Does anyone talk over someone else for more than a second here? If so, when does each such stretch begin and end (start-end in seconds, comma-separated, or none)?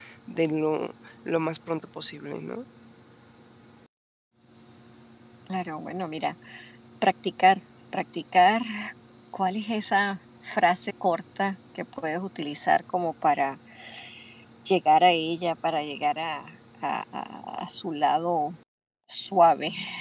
none